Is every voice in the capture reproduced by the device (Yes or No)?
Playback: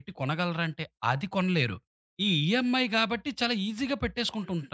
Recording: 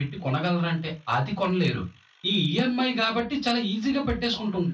Yes